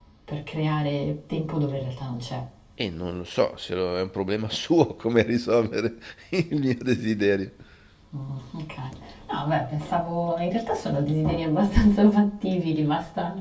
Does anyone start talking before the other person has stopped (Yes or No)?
No